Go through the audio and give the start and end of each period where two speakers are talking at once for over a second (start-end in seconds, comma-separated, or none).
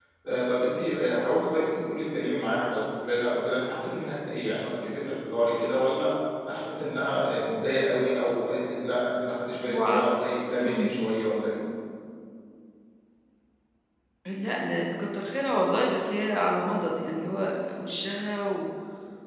none